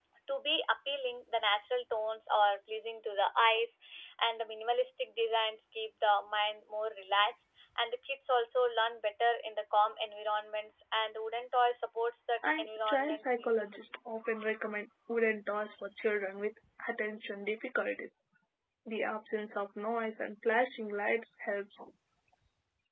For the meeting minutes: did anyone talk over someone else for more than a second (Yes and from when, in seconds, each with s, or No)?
Yes, from 12.4 s